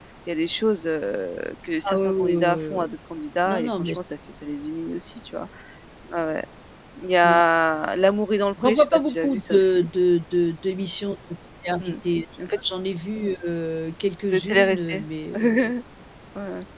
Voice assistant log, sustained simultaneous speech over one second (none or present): present